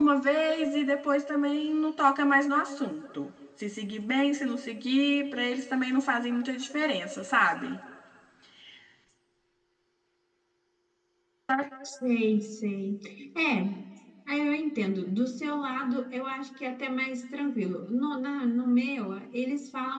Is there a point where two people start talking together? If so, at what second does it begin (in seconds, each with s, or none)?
none